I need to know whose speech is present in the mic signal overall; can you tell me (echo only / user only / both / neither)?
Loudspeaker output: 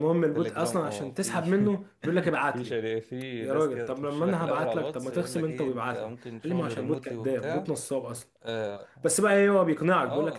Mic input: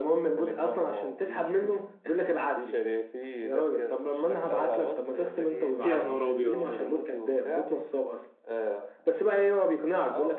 both